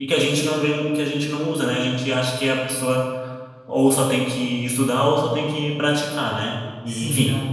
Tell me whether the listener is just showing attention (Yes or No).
No